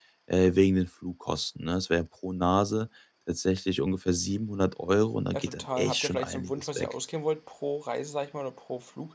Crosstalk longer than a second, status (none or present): present